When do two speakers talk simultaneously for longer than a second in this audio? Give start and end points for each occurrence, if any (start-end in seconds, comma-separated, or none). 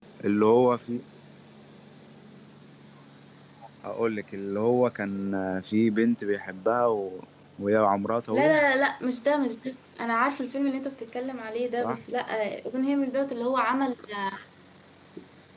none